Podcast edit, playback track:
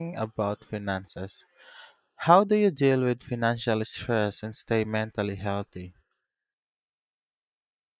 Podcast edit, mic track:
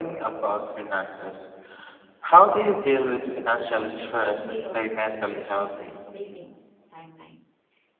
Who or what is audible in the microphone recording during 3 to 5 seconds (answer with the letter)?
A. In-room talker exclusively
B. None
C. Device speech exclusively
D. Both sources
D